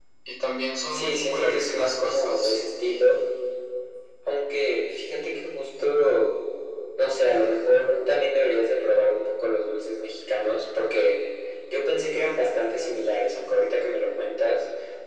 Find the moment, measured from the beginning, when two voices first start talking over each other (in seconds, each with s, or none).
0.9 s